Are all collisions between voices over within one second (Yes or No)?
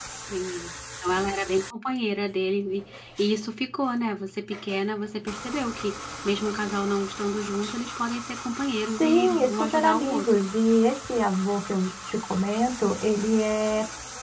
No